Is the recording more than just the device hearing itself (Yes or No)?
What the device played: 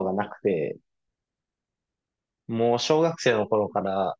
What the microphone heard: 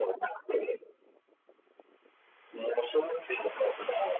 No